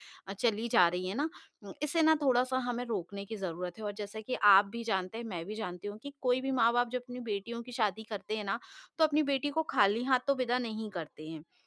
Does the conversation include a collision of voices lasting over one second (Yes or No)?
No